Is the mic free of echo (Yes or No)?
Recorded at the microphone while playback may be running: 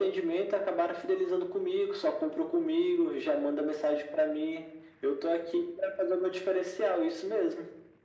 No